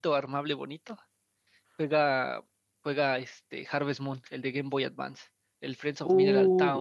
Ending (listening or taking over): taking over